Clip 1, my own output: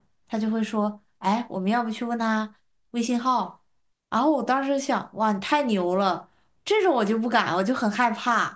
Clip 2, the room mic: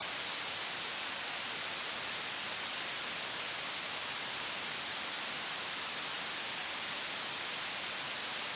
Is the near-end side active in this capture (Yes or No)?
No